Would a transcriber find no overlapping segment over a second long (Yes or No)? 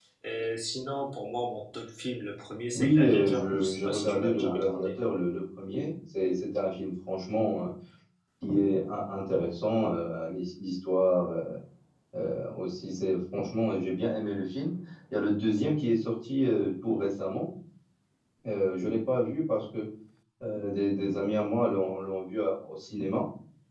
No